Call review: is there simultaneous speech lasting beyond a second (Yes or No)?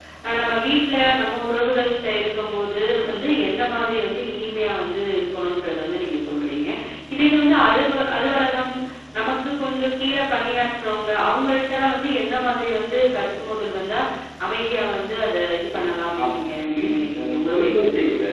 Yes